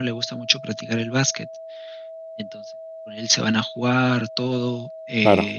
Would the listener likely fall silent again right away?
Yes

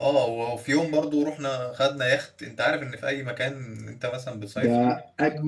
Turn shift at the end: Yes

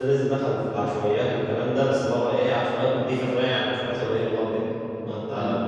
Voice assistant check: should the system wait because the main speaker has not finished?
Yes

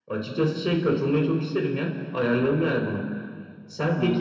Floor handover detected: No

